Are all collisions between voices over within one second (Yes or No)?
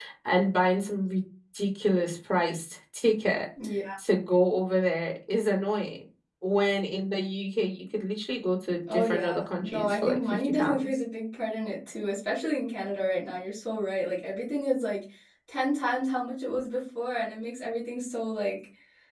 No